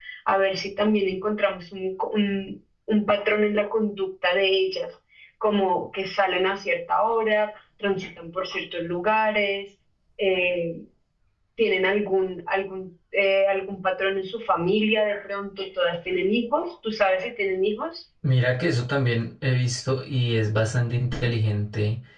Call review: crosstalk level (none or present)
none